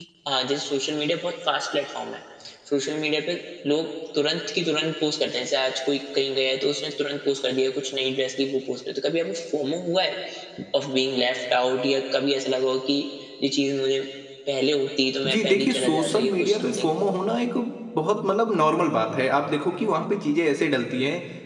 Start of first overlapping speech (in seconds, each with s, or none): 15.3 s